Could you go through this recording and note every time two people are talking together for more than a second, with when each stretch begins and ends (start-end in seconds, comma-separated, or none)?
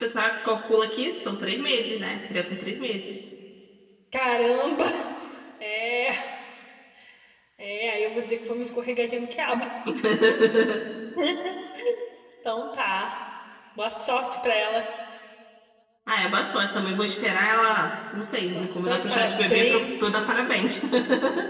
18.5-20.1